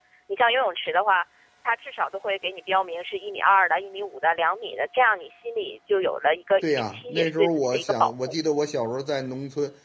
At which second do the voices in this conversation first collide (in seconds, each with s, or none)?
6.6 s